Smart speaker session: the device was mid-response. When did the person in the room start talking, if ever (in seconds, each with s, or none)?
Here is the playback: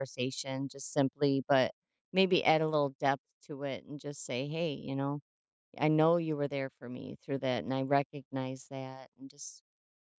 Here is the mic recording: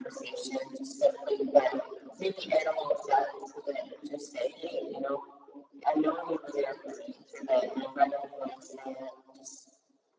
none